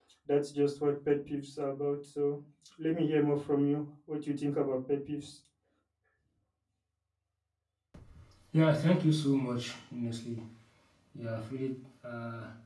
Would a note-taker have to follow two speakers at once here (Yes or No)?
No